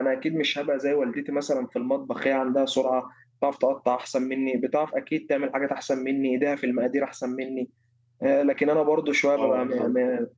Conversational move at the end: listening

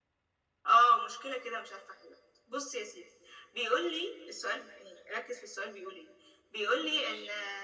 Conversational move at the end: listening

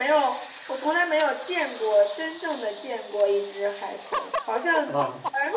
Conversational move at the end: listening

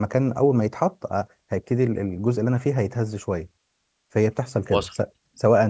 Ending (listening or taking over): listening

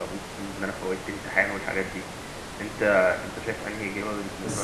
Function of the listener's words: taking over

